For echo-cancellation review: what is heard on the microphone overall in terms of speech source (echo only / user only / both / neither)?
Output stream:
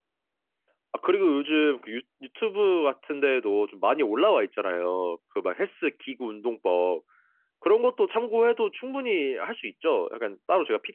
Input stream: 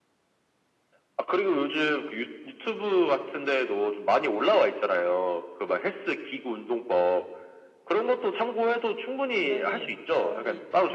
both